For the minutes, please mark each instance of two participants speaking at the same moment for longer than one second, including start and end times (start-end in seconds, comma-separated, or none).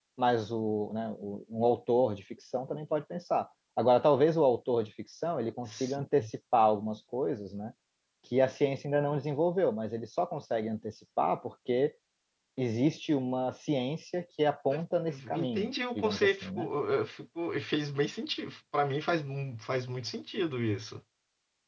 15.3-16.7